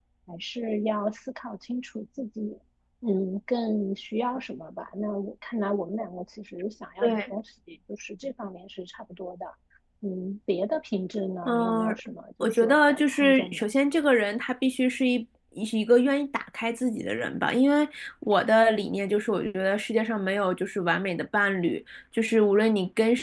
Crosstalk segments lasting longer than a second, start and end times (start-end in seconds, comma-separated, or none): 12.4-13.6